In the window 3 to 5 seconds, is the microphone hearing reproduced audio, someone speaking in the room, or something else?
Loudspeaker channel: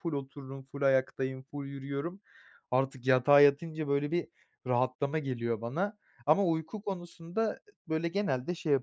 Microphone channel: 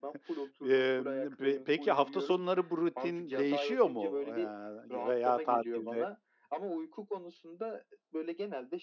both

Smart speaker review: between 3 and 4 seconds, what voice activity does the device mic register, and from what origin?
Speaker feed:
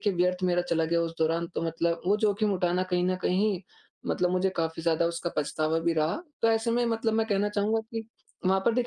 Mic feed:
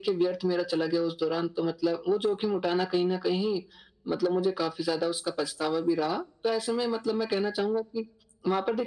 echo only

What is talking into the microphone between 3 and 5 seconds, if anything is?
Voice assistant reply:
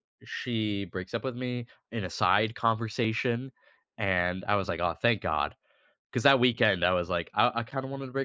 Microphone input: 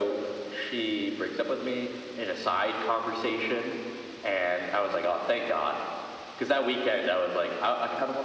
echo only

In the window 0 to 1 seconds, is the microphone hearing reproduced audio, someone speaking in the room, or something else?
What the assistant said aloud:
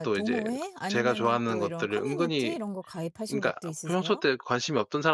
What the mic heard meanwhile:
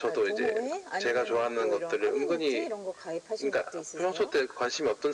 echo only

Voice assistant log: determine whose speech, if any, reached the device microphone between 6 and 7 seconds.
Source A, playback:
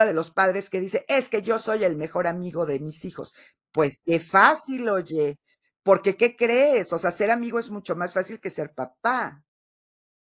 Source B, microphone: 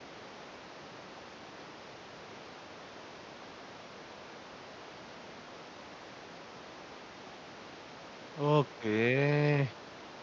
neither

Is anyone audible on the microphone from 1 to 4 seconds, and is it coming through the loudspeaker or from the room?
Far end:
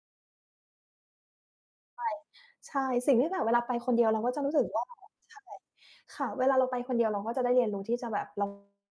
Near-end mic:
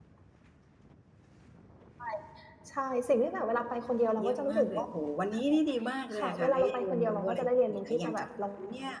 echo only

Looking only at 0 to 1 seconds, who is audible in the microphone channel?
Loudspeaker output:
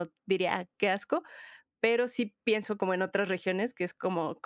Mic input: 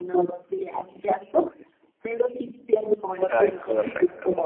echo only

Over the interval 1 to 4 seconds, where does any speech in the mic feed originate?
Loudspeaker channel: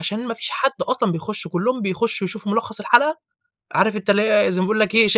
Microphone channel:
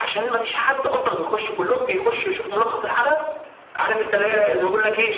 echo only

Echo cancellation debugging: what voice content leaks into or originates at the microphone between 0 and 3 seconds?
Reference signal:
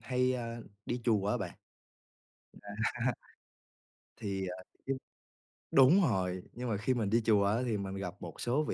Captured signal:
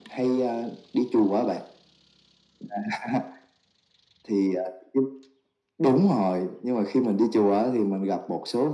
echo only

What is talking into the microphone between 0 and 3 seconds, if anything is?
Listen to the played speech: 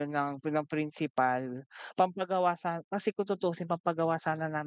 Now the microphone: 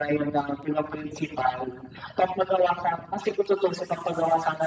echo only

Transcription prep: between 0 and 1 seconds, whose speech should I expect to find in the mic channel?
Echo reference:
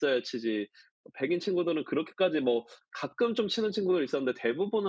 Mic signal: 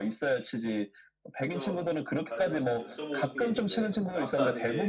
echo only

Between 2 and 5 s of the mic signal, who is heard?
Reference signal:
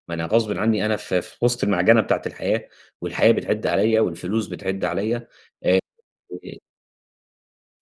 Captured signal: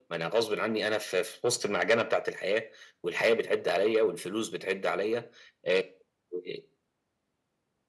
echo only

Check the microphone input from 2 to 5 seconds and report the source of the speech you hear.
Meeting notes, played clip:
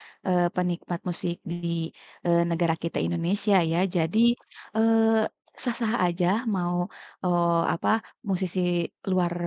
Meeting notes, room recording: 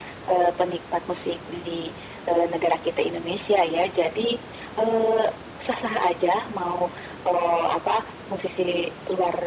echo only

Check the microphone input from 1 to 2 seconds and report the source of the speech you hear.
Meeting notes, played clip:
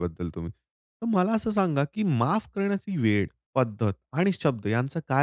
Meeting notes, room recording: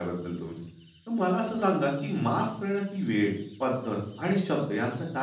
echo only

